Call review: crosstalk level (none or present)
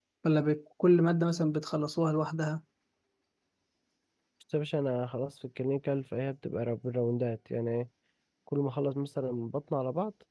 none